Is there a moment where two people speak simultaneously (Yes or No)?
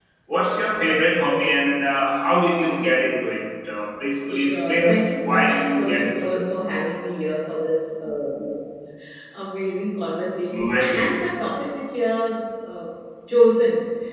Yes